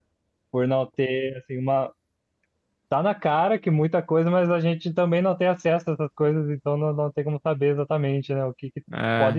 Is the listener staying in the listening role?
Yes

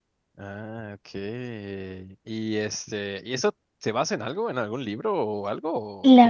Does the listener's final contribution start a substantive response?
Yes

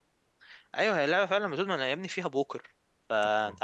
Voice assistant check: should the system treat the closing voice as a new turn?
No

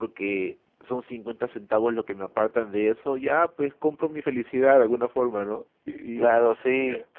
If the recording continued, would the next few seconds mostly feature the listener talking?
Yes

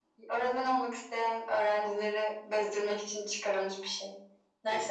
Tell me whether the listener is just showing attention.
No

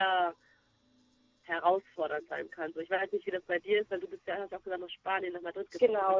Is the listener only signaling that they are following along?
No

